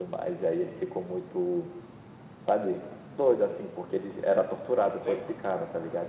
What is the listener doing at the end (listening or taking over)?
listening